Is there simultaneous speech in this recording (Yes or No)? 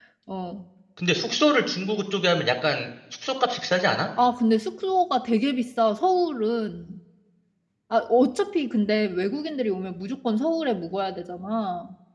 No